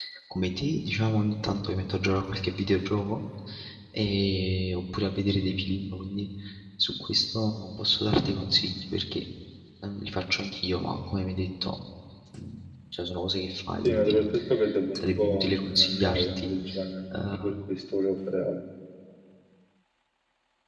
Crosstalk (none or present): present